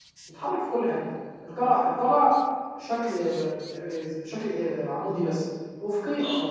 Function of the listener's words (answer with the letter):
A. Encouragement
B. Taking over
A